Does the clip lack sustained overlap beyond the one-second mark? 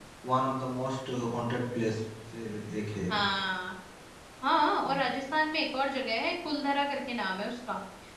Yes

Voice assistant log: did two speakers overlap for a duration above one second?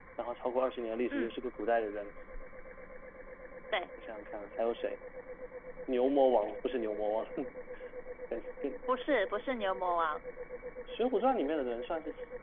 No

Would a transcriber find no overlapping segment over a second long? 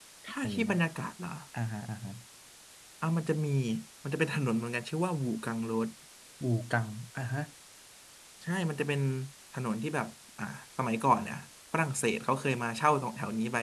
Yes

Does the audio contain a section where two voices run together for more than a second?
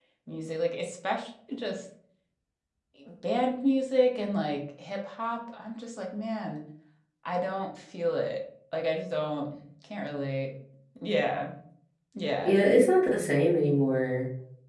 No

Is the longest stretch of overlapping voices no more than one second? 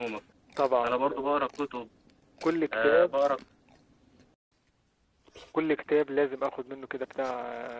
Yes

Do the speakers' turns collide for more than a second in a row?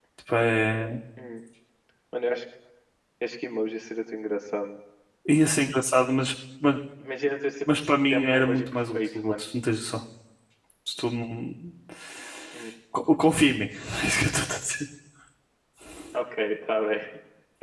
Yes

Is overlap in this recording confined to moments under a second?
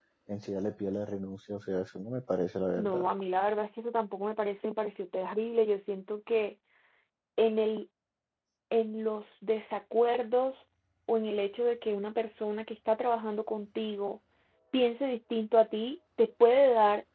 Yes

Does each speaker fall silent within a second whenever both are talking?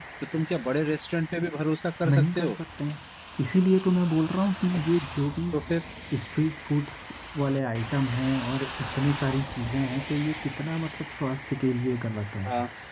Yes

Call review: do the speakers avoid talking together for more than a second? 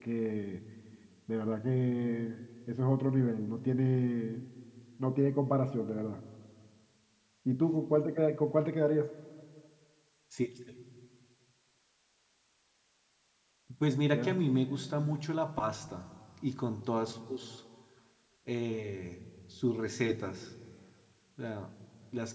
Yes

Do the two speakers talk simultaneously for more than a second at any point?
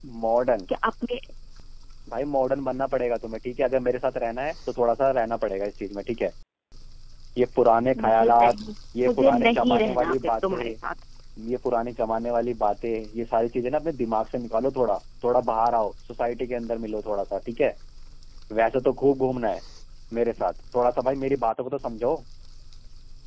Yes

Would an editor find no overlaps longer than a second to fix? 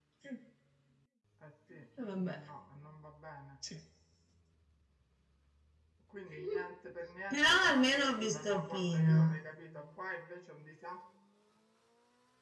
No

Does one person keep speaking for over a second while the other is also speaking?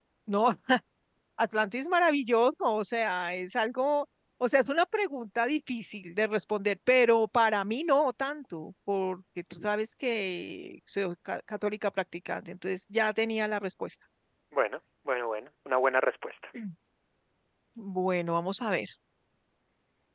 No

